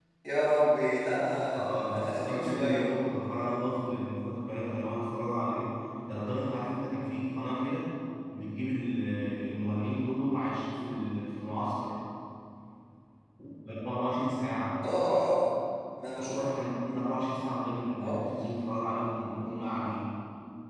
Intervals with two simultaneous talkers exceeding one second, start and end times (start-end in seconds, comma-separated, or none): 1.6-2.9